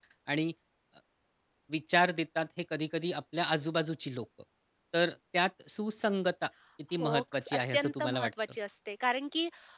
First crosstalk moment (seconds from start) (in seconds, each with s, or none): 7.0 s